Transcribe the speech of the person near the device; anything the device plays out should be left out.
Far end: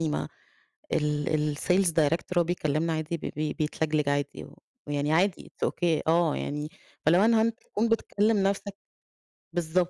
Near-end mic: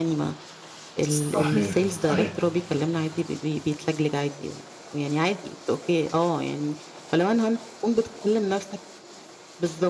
صحيح، صحيح.

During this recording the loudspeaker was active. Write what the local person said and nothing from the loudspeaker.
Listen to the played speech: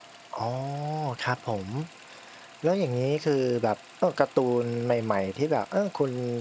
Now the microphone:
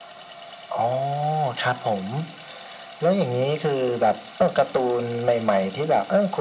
none

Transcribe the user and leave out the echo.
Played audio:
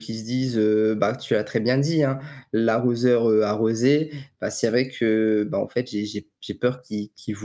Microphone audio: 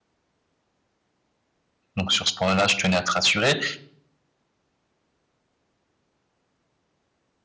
donc sur ce point là je tenais à te rassurer,

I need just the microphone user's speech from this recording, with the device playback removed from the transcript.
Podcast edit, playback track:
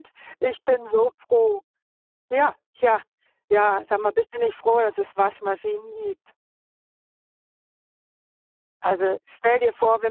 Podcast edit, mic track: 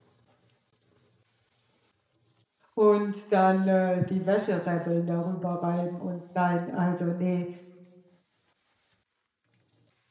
und dann, äh, die Wäsche rebbeln, darüber reiben und nein, also, ne,

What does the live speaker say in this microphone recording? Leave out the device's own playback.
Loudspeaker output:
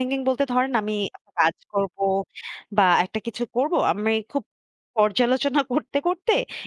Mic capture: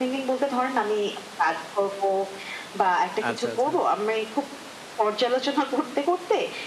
আচ্ছা, আচ্ছা।

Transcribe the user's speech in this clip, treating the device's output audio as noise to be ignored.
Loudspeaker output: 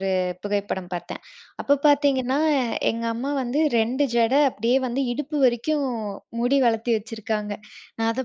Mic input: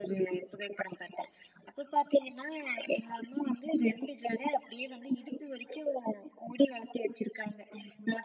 none

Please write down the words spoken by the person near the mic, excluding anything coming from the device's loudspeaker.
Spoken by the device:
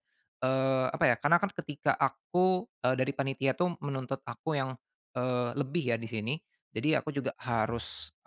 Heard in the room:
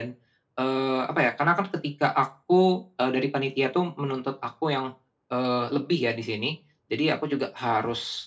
none

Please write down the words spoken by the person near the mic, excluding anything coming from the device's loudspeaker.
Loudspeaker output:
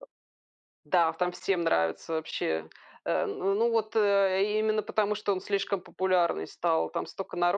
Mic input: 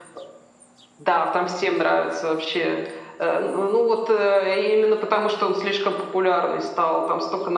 none

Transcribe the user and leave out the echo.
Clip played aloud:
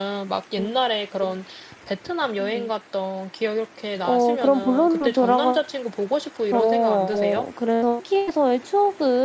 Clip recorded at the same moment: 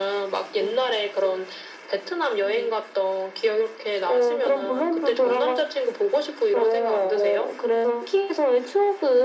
none

